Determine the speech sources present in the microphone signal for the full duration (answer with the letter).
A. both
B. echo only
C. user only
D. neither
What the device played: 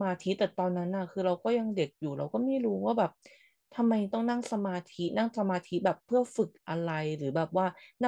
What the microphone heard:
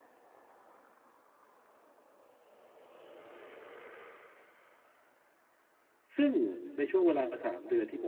C